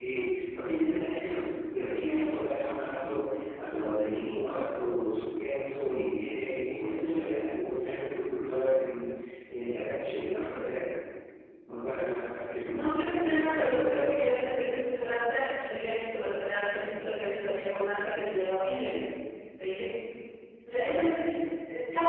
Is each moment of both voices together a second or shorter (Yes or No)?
No